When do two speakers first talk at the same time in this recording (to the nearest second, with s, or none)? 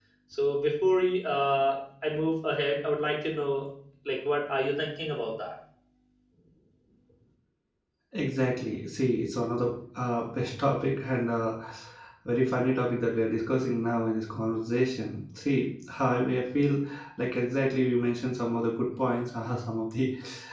none